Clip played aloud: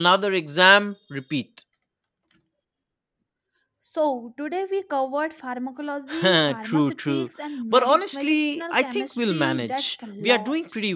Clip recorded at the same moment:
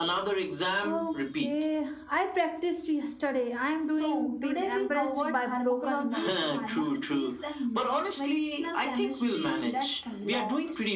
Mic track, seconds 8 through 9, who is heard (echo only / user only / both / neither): echo only